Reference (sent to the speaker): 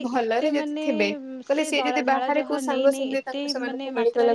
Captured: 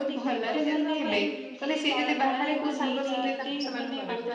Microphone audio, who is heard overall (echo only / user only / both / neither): both